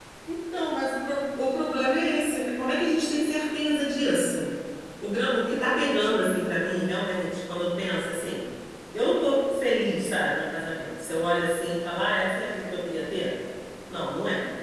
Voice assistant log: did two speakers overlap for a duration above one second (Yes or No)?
No